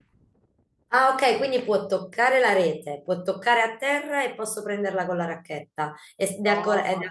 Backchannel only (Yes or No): No